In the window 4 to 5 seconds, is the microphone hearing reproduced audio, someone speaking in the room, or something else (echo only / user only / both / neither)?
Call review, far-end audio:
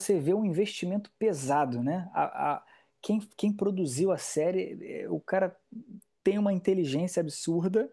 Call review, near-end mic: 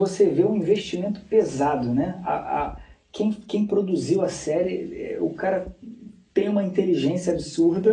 echo only